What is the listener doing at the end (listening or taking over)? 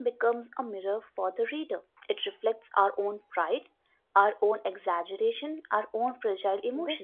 taking over